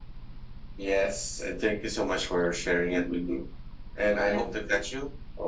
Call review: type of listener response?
listening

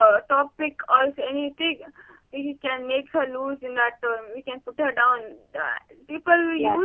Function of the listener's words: listening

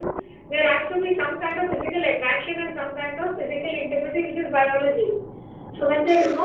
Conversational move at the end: listening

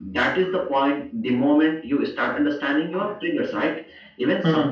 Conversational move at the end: listening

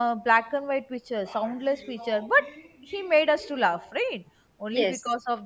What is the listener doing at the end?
listening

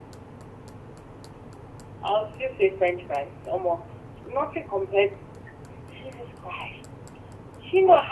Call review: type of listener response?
listening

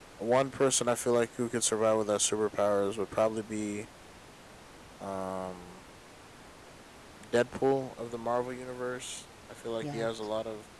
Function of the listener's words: listening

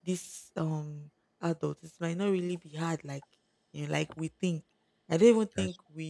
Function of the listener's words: listening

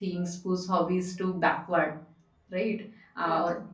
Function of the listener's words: listening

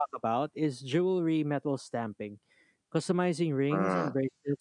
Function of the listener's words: listening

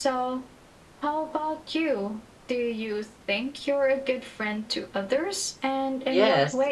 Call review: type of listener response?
taking over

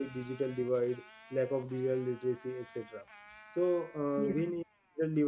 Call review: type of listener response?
listening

